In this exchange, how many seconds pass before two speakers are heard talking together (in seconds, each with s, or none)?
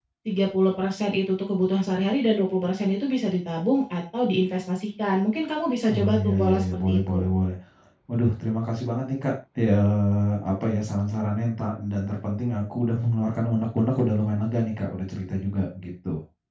5.9 s